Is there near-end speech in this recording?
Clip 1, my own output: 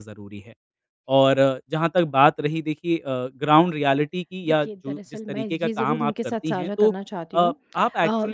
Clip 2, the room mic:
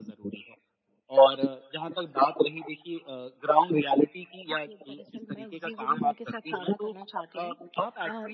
No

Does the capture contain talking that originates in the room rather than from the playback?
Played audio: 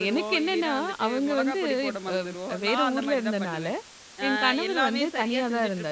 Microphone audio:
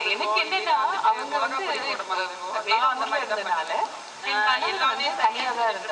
No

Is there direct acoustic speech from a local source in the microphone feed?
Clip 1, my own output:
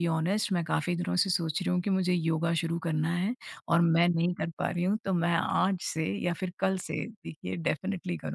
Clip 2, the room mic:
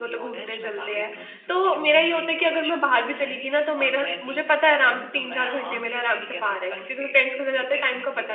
Yes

